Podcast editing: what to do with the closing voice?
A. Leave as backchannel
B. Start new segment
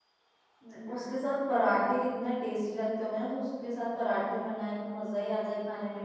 A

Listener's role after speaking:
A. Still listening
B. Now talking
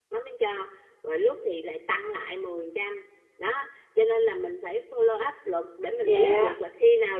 A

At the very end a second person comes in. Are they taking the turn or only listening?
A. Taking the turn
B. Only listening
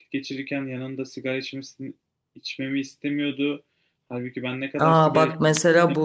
A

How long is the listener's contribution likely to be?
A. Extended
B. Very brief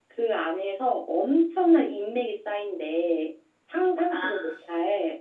B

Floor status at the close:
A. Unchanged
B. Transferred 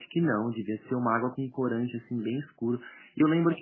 A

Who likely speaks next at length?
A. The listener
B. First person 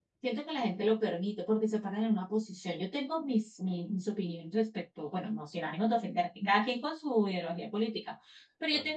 B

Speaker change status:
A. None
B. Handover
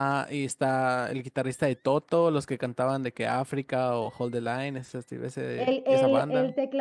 B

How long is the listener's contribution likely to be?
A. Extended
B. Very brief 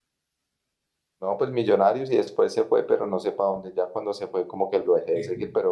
B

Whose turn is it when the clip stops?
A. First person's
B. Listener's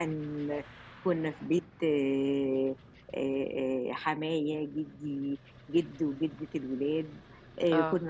A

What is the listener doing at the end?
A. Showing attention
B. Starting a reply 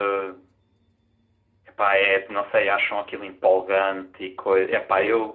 B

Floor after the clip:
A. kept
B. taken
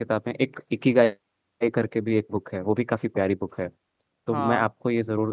A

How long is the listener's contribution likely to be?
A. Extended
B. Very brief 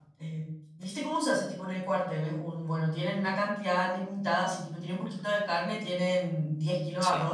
B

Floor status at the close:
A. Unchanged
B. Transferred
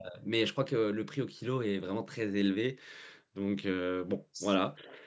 B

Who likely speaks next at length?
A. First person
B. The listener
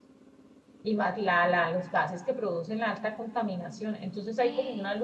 A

